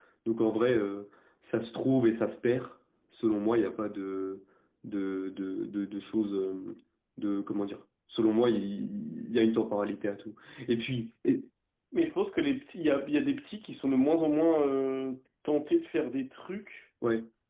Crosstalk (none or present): none